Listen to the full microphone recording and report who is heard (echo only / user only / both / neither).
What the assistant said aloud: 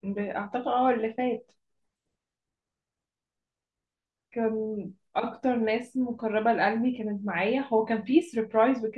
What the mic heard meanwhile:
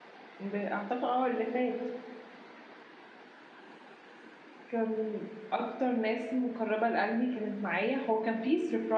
echo only